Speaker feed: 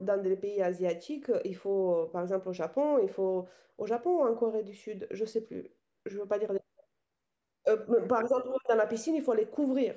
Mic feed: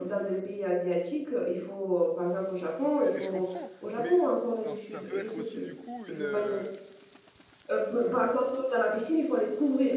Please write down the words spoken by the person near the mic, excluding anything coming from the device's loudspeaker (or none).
Mais je comprends, mais dans- ça peut être aussi du coup une, euh,